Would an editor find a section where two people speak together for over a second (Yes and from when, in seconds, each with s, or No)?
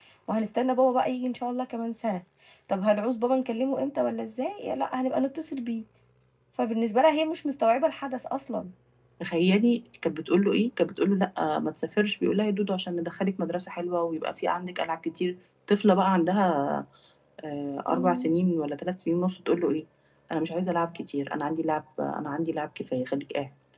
No